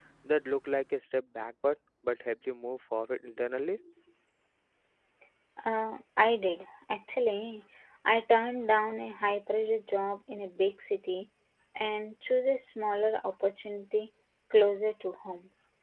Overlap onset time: none

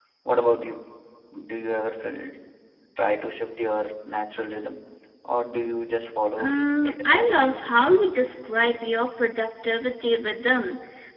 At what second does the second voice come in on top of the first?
6 s

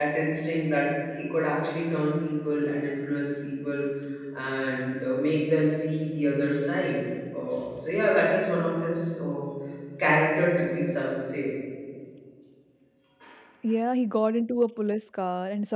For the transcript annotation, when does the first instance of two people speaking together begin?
none

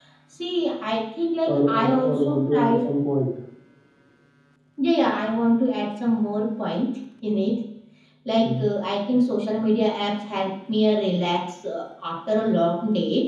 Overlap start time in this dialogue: 1 s

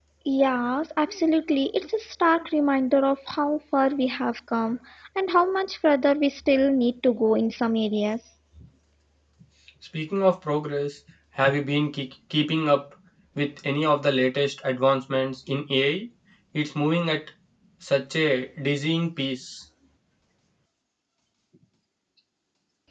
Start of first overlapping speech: none

